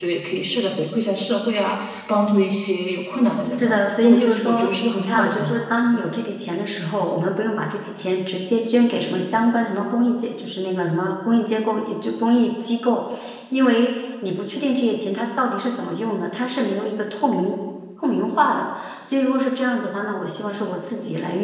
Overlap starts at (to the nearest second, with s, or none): 4 s